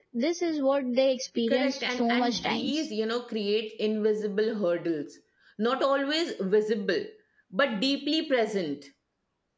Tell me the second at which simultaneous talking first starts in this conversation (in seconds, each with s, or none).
1.5 s